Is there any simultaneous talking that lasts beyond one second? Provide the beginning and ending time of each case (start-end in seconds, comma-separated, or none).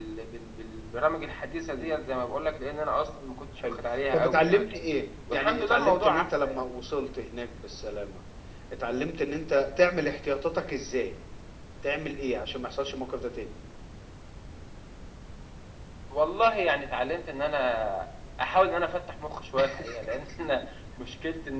5.3-6.6